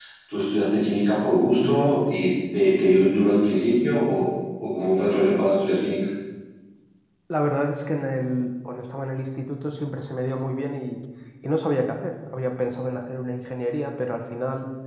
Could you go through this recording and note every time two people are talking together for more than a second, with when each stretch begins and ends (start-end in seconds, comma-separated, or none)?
none